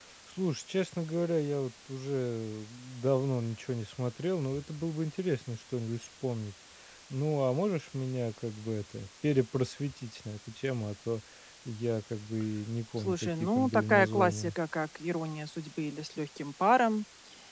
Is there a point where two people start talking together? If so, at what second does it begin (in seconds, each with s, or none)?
13.0 s